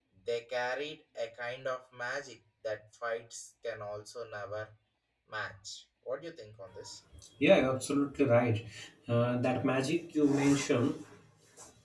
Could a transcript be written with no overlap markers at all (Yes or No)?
Yes